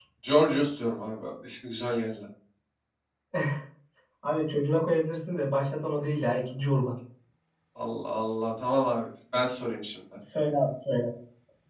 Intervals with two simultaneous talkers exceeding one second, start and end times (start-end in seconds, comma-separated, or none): none